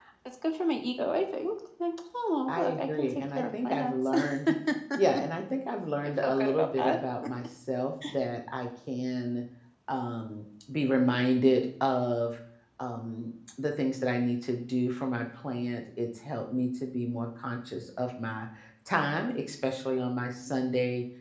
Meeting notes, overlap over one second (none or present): present